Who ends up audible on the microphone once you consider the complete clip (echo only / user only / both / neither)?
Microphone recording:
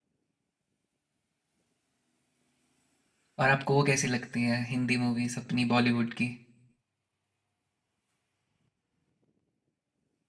user only